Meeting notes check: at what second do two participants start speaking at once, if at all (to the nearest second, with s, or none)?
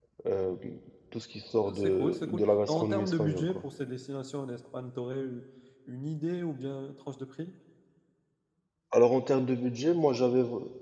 2 s